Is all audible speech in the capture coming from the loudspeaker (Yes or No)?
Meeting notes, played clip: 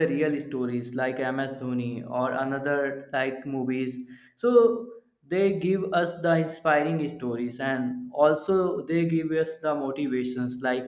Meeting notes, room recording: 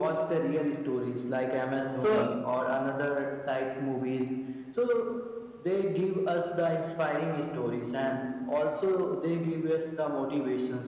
No